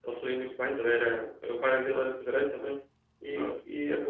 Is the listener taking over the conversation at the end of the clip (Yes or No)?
No